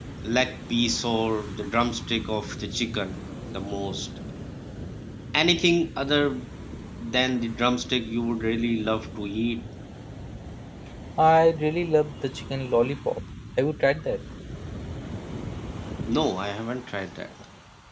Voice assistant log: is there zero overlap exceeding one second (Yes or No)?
Yes